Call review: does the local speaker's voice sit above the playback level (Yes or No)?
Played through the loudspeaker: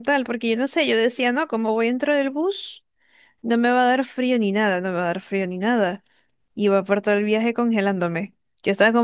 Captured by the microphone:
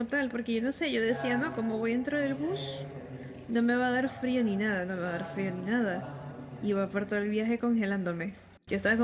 No